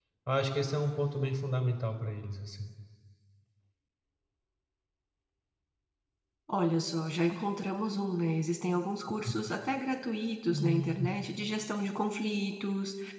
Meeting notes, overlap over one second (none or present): none